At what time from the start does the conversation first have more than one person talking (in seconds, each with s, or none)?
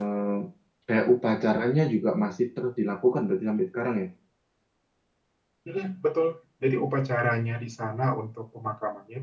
none